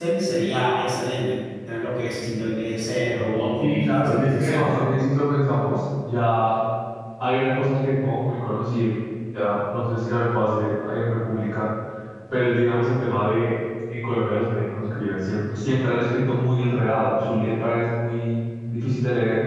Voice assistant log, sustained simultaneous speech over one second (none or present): present